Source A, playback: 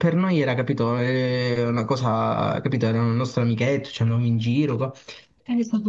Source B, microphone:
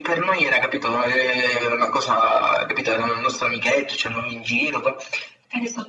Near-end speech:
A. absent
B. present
A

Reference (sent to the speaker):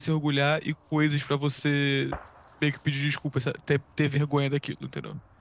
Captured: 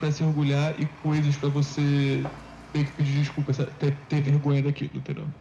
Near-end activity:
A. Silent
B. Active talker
A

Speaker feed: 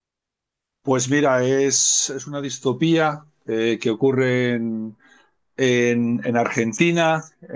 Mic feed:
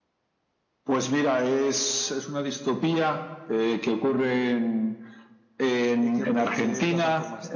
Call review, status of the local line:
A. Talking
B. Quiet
A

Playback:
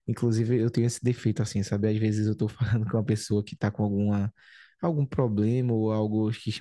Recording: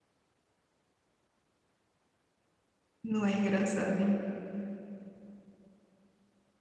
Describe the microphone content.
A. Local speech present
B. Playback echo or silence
A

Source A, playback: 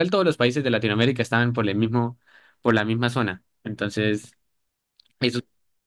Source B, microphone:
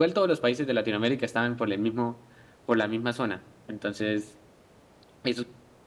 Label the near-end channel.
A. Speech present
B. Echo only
B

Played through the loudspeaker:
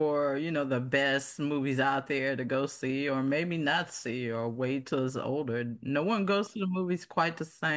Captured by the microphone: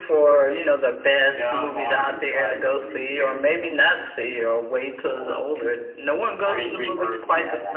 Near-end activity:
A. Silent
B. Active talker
B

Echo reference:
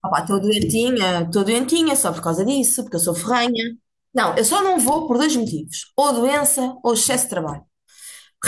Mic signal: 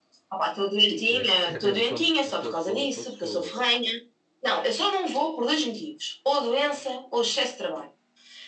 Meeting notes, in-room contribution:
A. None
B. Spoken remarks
B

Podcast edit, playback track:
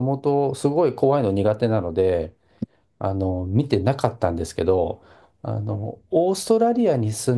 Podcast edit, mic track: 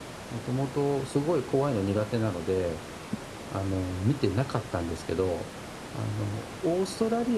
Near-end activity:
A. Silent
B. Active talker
A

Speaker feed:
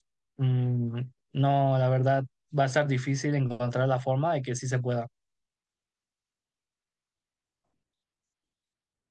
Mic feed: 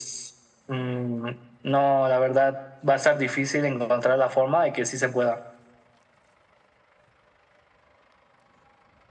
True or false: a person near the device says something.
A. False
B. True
A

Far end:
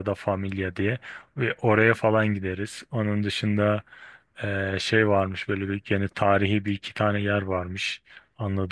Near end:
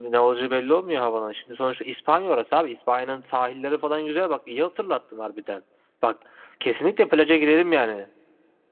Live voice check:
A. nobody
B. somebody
B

